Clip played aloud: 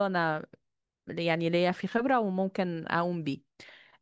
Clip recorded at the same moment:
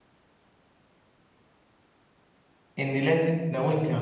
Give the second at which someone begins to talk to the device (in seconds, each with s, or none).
2.8 s